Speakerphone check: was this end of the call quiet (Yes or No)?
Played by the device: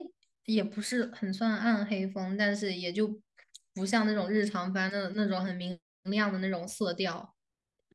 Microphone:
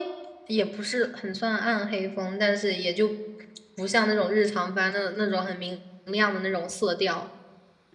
Yes